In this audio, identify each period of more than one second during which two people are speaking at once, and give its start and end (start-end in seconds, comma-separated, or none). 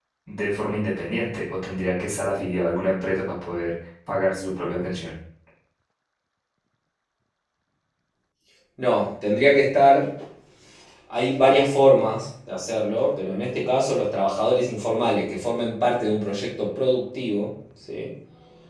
none